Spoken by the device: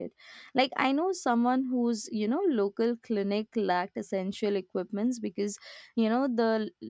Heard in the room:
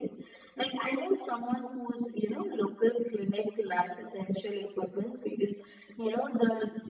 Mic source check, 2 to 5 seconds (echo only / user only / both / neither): echo only